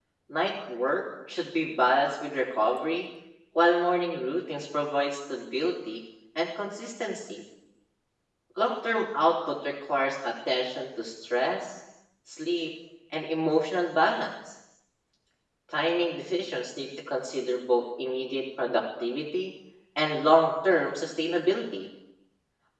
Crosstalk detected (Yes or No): No